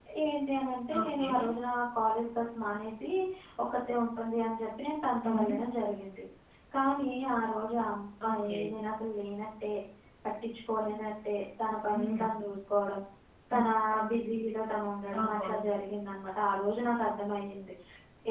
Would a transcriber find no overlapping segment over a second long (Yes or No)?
Yes